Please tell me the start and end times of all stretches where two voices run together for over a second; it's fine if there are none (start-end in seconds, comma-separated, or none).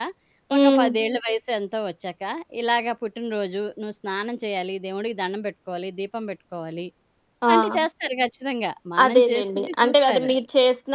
9.0-10.3